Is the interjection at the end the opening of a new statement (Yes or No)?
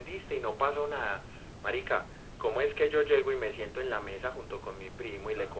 No